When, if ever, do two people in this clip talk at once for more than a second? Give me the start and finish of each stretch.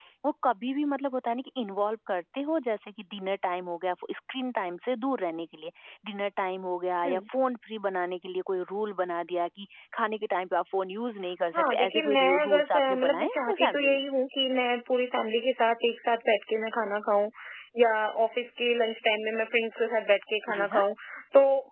11.6-14.0

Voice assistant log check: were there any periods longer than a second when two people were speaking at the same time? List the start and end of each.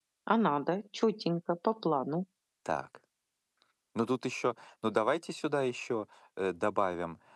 none

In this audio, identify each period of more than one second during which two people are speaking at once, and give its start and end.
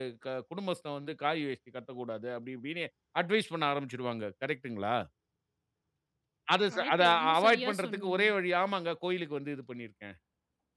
6.7-8.2

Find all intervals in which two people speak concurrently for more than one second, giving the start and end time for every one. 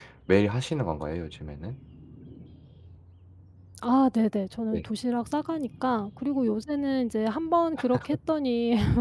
none

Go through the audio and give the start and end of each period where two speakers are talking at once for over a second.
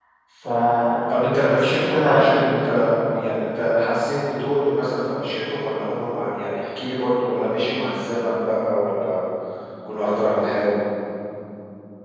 1.1-2.4

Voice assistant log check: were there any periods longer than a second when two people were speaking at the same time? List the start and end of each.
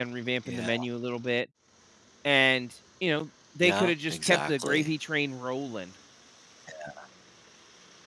3.6-4.9

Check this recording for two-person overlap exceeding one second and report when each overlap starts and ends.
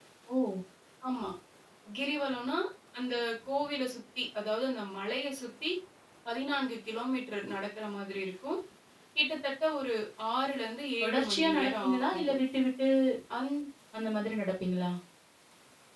11.0-12.3

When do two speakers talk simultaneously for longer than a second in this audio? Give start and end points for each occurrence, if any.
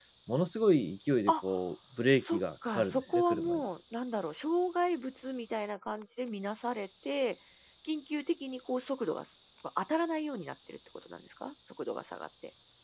2.3-3.6

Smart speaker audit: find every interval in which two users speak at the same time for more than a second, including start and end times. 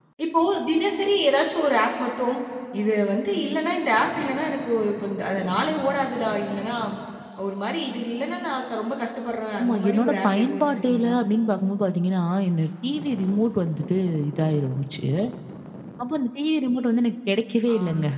9.6-11.1

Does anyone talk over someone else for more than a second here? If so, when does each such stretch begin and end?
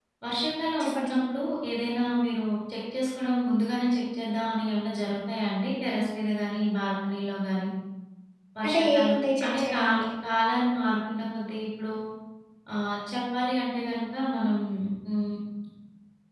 8.7-10.0

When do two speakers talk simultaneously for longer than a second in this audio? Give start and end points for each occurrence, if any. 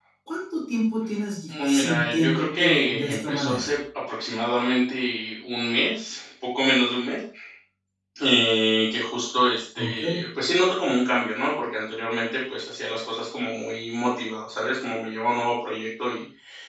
1.5-3.8

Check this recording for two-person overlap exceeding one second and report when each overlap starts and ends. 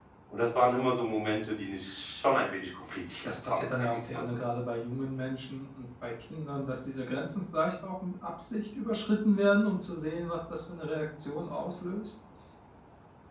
3.2-4.5

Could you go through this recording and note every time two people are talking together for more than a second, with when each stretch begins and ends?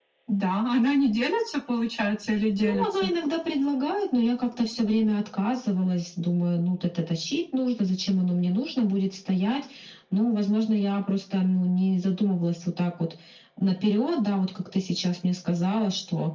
none

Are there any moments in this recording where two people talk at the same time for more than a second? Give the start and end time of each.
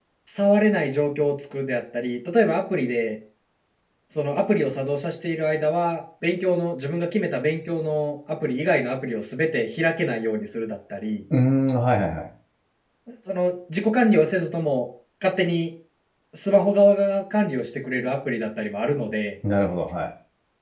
none

